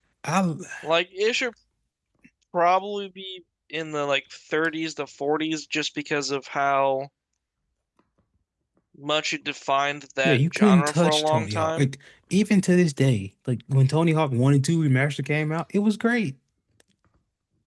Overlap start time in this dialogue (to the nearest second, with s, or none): 10 s